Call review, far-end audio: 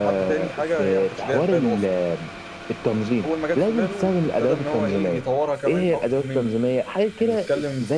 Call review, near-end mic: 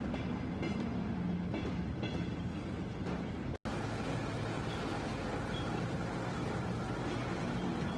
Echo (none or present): none